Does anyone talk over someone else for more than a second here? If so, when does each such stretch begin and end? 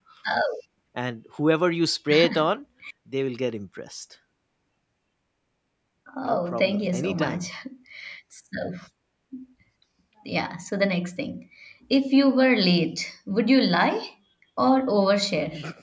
6.2-7.5

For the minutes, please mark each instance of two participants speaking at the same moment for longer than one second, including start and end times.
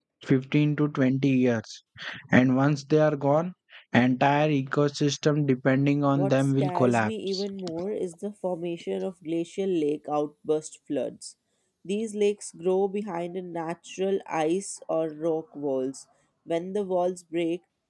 6.2-7.4

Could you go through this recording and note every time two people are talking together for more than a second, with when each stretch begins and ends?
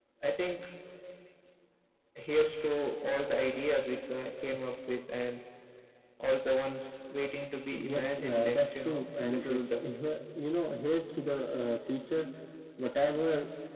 7.7-9.7

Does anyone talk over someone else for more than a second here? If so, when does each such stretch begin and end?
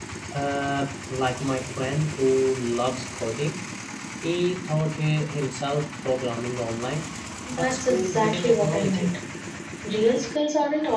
7.5-9.1

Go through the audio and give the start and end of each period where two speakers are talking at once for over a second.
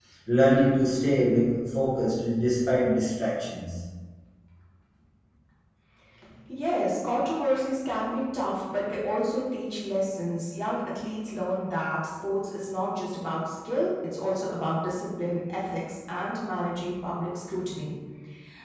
none

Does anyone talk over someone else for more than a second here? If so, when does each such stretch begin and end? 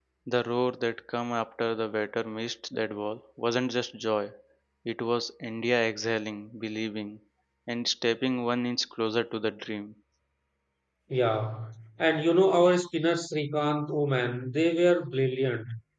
none

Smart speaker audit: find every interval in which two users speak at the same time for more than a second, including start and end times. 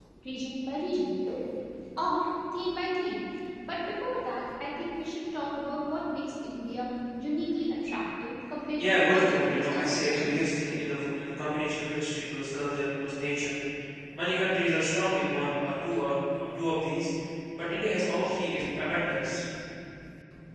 8.8-10.4

